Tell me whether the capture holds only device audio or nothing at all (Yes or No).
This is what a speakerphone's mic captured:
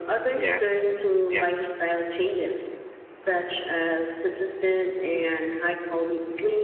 No